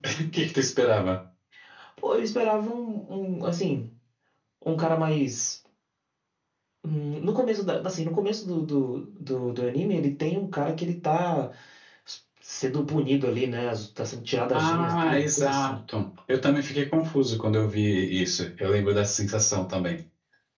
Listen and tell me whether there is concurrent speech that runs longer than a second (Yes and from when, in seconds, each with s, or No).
Yes, from 14.5 s